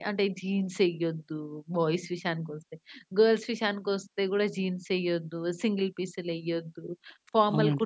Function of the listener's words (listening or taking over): listening